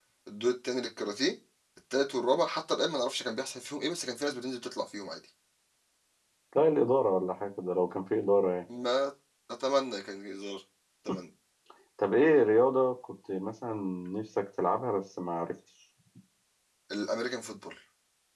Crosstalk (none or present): none